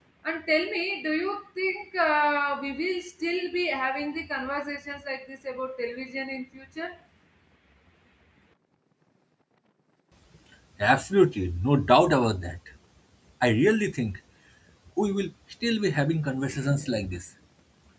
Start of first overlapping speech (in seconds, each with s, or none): none